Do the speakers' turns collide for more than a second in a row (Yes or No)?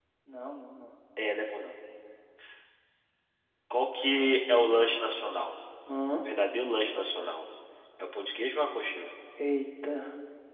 No